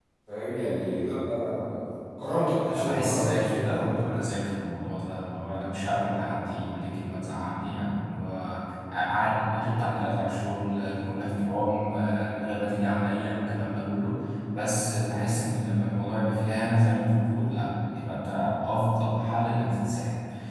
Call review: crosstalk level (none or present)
present